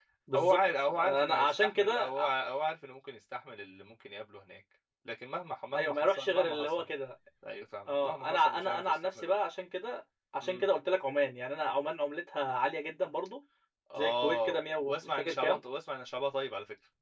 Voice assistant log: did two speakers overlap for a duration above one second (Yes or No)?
Yes